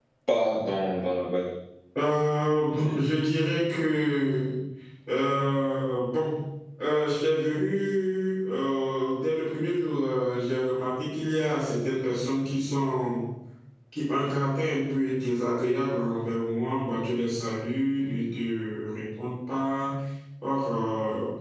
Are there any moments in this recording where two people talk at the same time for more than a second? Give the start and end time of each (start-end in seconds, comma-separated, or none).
none